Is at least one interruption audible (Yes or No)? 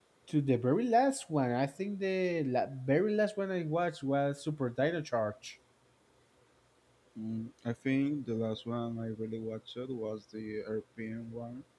No